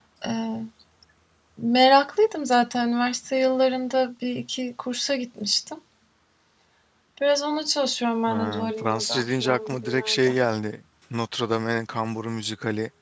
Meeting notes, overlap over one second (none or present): present